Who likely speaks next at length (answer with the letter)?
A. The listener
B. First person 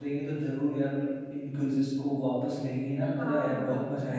A